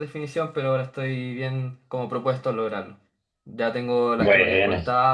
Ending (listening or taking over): listening